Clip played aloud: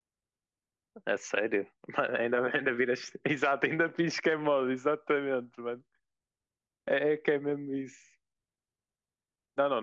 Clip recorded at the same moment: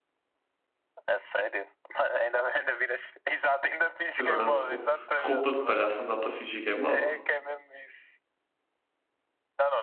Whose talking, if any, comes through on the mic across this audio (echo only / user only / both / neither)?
both